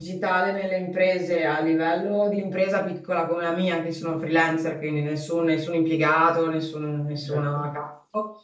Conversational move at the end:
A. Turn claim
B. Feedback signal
B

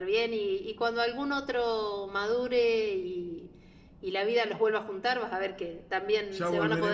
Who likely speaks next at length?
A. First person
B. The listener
B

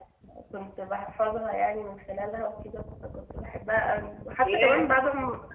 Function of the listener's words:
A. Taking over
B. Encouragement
B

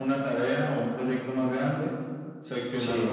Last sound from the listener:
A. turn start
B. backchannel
B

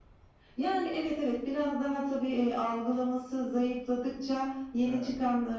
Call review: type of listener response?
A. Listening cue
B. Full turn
A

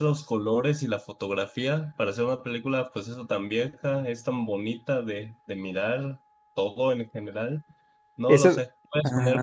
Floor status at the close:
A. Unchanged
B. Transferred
A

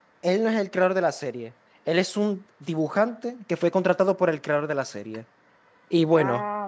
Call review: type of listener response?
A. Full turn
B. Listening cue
B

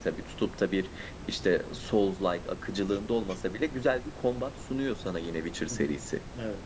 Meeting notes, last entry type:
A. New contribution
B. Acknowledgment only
A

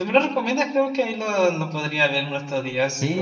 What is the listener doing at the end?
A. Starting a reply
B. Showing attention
A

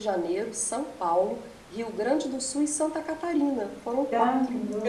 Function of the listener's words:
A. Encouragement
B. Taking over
B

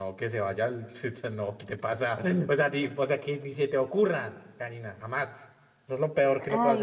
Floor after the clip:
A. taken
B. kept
B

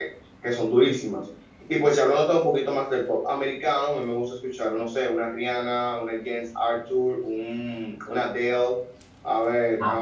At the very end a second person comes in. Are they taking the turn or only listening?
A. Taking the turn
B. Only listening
B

